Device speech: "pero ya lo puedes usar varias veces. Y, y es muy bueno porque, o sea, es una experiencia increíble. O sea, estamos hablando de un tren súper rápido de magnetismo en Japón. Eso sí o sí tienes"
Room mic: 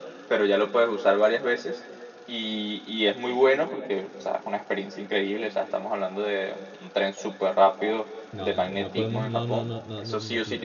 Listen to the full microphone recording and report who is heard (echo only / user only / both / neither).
both